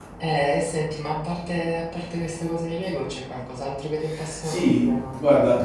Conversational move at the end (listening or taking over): taking over